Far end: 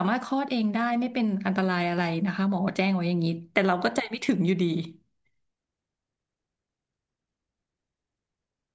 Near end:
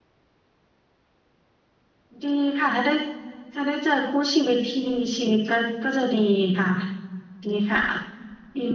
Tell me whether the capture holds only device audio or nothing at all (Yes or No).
No